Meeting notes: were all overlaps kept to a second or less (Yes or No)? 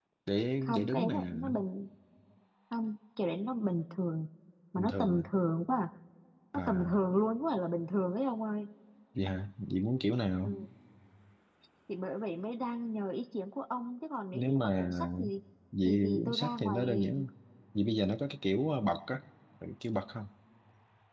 No